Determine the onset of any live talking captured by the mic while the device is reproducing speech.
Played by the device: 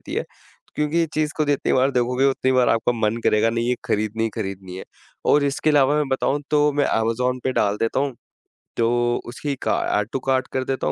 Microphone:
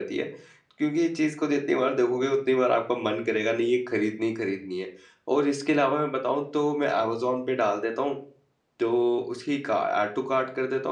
none

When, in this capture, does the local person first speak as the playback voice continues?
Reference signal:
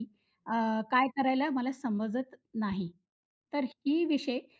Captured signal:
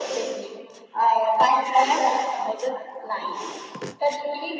none

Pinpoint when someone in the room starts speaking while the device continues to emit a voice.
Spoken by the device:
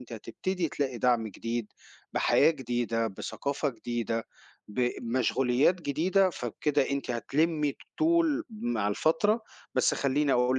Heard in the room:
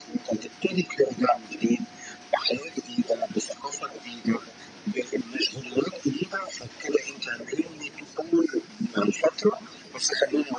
none

